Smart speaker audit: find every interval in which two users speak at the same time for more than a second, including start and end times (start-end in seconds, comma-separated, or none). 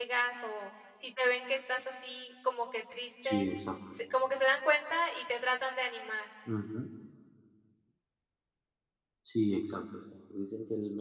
none